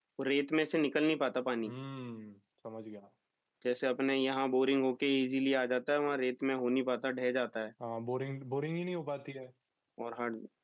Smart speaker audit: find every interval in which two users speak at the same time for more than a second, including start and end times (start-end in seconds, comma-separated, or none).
none